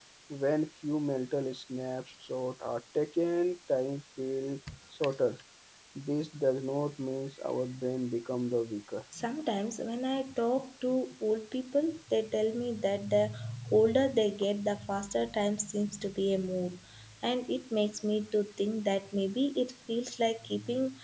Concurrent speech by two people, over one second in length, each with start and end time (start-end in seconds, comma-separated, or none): none